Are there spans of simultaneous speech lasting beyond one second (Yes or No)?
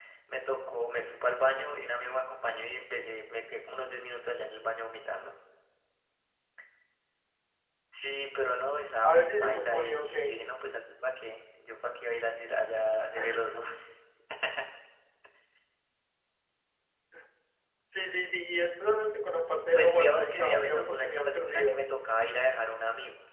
Yes